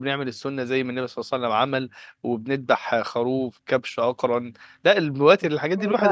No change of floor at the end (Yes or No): Yes